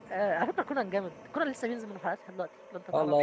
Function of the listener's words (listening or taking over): taking over